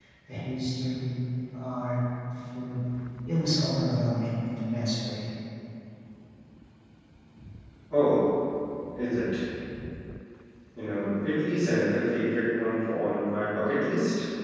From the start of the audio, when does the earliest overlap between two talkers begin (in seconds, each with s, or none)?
none